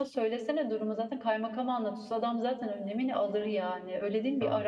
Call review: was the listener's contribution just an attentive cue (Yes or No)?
No